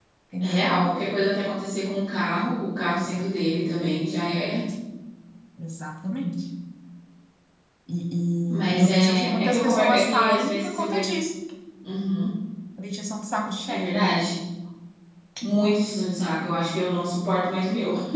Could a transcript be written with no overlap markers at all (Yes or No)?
No